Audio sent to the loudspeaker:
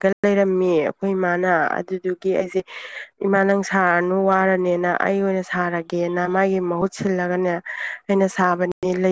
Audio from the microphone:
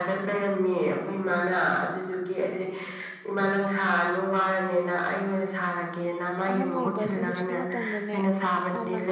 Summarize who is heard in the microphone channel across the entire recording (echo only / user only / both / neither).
both